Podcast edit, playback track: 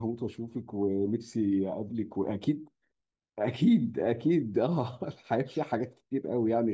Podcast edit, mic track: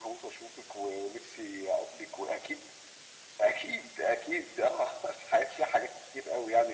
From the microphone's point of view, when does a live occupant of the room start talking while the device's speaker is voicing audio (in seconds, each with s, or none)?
none